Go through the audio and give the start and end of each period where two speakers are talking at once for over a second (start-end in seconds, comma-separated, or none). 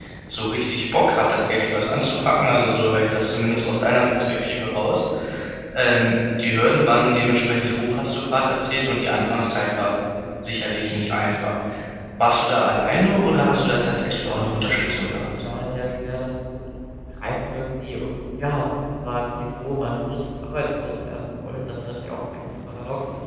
13.3-15.3